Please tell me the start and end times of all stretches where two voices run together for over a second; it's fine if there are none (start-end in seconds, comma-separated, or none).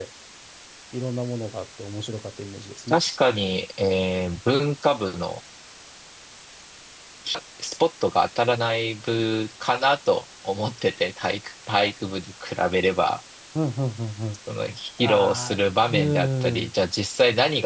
15.0-16.7